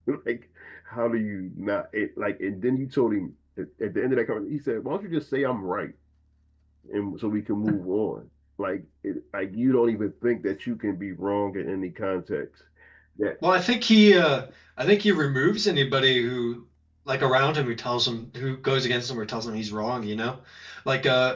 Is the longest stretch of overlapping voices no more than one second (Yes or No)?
Yes